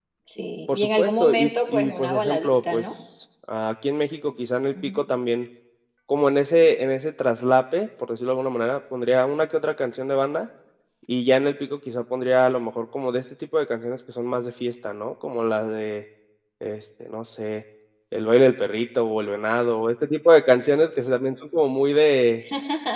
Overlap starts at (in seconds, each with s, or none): 0.7 s